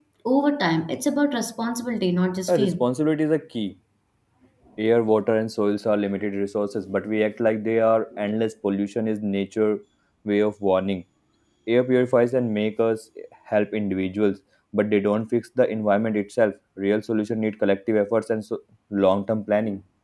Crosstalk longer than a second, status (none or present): none